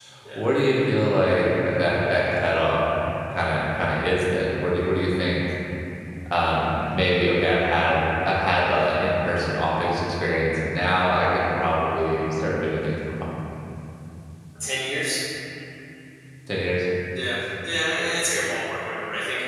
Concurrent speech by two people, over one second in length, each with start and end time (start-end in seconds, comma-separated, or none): none